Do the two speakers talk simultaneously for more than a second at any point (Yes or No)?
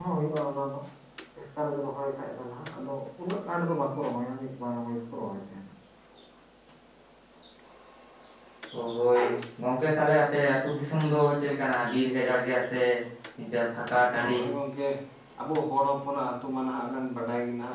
No